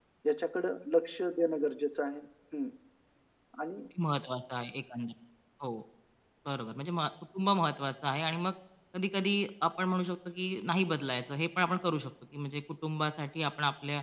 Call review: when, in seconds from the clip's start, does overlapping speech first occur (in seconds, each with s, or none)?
none